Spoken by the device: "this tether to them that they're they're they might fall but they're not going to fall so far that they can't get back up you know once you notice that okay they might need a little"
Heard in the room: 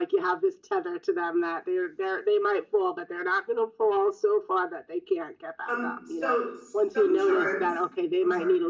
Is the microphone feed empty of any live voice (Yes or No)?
No